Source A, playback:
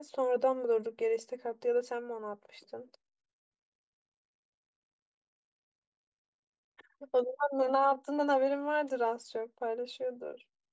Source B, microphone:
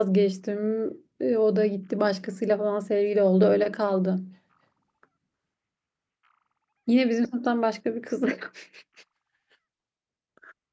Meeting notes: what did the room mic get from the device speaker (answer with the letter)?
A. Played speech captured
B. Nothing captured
B